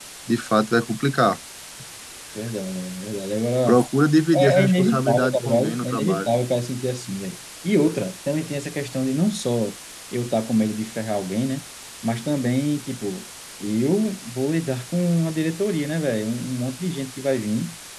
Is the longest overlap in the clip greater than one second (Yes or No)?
Yes